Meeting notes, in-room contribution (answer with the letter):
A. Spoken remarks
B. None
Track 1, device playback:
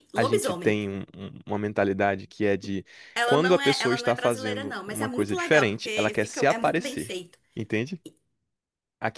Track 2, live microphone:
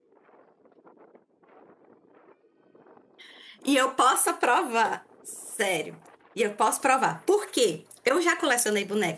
A